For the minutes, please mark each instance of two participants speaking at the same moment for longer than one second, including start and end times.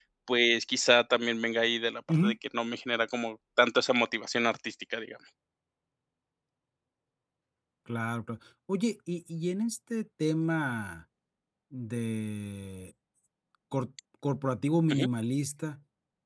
none

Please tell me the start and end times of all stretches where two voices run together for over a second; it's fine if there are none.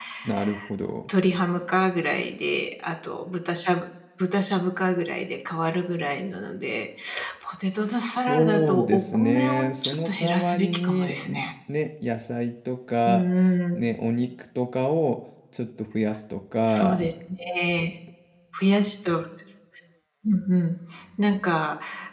7.9-11.4

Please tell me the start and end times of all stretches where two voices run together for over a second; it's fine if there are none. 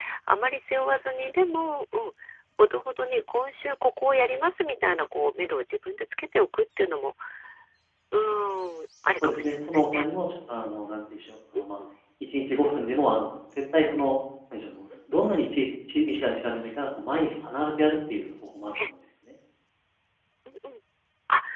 9.2-10.6

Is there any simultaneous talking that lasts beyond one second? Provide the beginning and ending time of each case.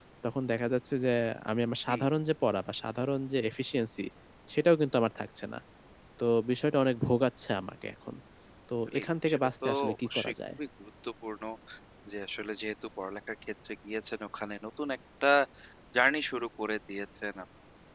8.9-10.3

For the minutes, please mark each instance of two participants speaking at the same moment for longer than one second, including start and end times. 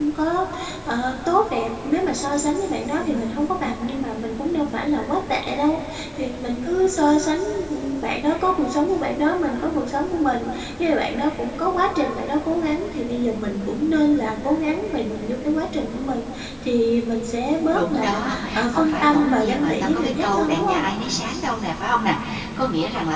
17.7-20.9

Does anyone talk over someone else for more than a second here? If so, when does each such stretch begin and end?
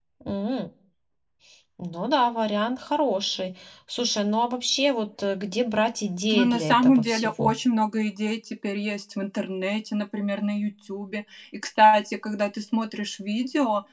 6.3-7.5

